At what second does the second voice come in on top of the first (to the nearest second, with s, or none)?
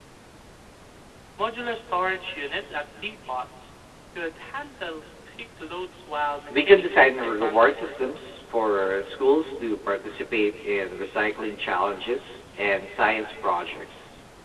7 s